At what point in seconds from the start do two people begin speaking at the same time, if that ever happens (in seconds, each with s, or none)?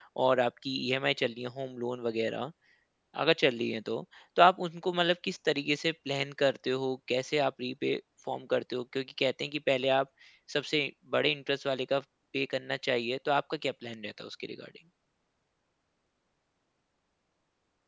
none